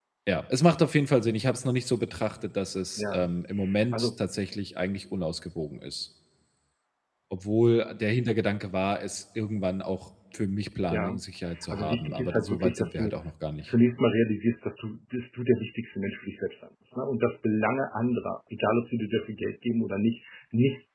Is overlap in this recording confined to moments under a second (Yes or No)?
No